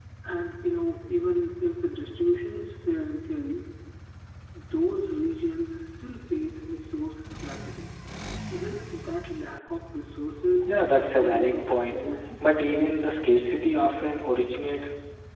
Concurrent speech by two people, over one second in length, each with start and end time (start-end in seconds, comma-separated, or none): 10.6-12.0